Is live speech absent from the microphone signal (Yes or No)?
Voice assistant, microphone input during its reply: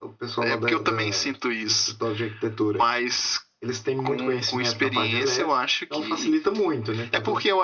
Yes